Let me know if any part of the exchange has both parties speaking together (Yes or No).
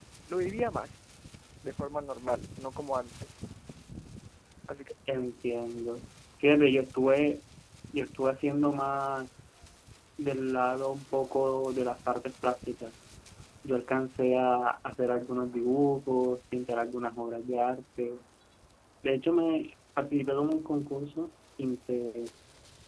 No